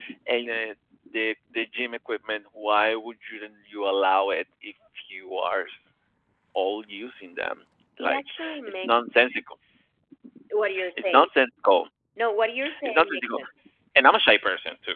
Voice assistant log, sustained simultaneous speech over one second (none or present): present